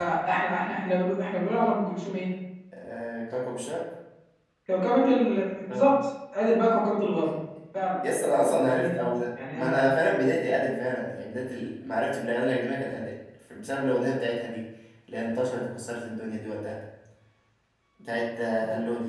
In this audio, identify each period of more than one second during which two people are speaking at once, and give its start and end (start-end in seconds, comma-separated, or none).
none